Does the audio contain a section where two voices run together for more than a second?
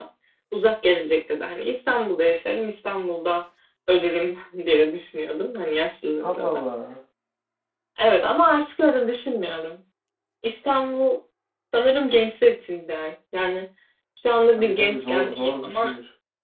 Yes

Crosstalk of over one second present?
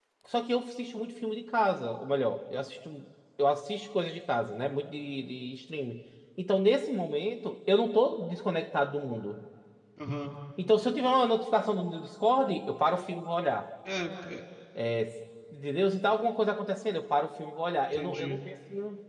No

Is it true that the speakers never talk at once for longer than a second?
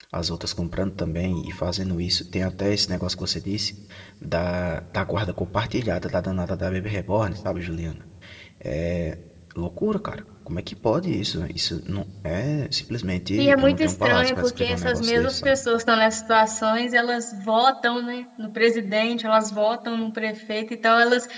No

